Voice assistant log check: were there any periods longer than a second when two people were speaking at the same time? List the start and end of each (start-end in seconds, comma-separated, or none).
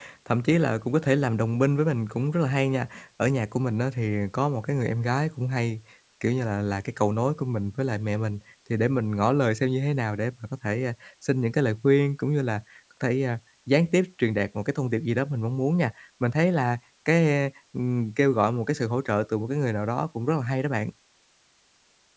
none